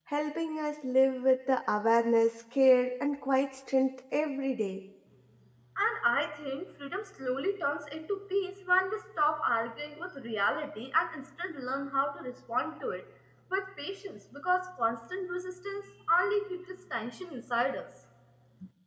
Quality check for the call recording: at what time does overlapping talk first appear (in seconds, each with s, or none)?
none